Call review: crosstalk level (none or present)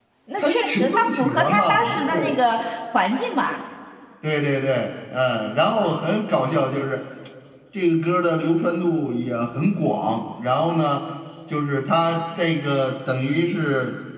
present